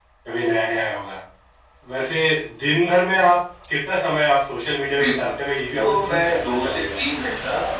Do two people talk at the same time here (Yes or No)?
Yes